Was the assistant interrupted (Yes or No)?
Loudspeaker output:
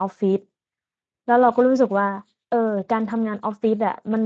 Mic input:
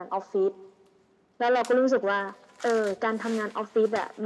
No